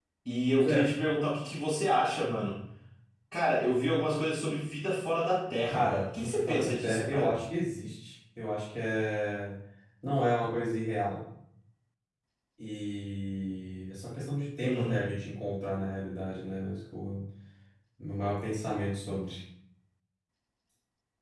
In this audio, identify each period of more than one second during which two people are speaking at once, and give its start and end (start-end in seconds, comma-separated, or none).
5.7-7.3